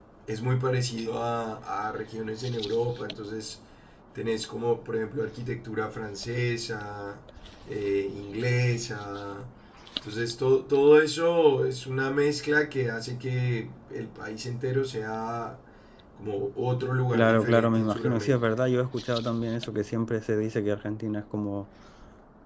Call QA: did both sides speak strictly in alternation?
No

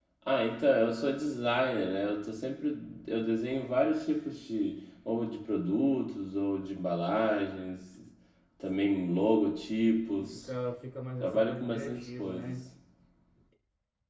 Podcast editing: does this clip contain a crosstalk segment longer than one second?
Yes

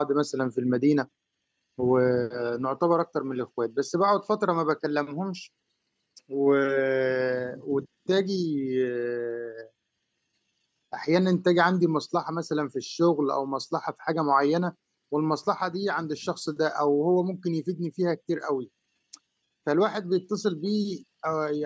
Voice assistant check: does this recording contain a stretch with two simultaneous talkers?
No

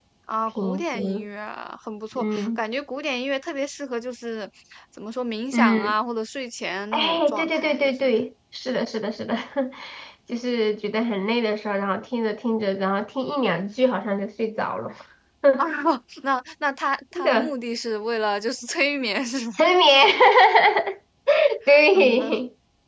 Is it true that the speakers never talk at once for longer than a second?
No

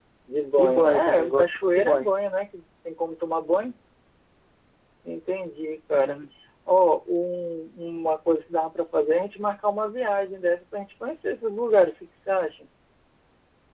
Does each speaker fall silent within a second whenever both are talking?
No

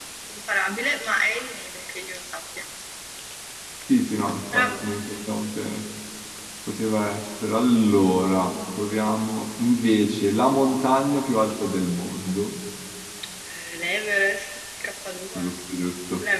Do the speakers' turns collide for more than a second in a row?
No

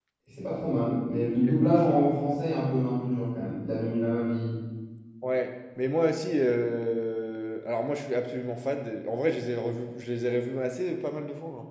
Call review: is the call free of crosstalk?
Yes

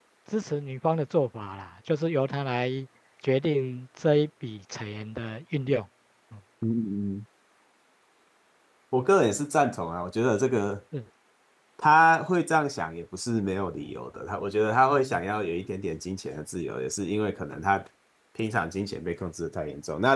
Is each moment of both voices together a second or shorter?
Yes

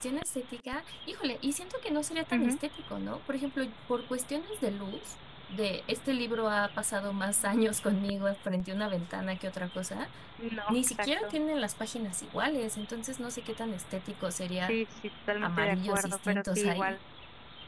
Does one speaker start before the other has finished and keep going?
Yes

